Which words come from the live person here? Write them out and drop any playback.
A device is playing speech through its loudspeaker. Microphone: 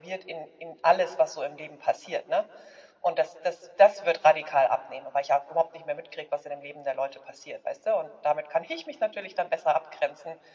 none

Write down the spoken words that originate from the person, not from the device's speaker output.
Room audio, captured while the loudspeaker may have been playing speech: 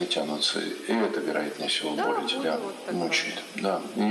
Да, буду вот такая".

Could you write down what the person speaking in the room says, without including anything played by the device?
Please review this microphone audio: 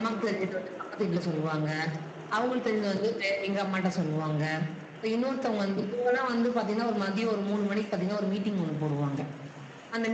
none

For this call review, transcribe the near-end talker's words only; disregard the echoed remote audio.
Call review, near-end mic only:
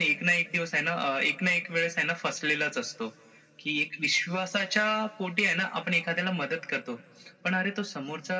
none

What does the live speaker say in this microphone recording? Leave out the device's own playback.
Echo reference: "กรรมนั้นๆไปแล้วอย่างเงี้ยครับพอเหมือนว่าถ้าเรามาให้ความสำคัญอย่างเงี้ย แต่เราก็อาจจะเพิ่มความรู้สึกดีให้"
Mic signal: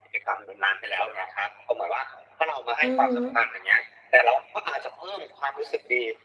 อือฮึ

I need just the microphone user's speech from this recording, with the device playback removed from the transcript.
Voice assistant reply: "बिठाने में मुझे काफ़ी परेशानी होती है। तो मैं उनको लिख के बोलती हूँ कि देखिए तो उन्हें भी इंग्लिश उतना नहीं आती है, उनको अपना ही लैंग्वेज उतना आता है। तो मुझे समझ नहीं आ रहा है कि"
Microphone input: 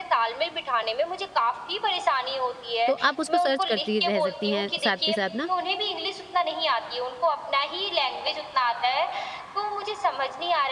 तो आप उसको सर्च करती रह सकती हैं साथ के साथ ना,

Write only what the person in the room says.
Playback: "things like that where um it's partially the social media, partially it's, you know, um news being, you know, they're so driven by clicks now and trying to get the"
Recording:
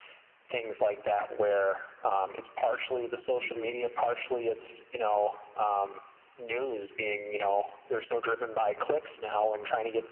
Mhm.

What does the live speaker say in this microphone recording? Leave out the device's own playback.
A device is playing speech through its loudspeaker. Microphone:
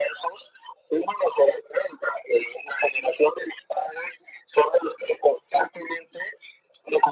none

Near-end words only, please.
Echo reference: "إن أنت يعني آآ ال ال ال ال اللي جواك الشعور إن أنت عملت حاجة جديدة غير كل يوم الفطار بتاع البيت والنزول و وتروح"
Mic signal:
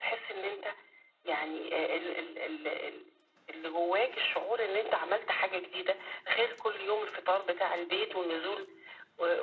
none

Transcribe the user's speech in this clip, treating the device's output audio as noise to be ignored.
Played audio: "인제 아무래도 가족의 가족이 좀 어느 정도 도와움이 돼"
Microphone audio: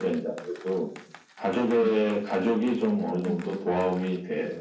네. 와.

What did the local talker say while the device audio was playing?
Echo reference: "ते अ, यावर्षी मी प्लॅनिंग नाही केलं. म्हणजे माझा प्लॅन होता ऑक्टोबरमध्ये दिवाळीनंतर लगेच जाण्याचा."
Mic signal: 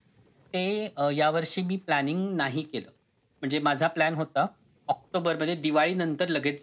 none

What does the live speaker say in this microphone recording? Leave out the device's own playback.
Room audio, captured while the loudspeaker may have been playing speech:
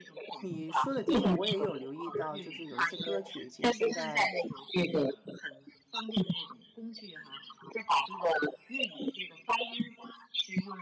你说的的确我也有留意到，就是有一些歌曲，其实现在，

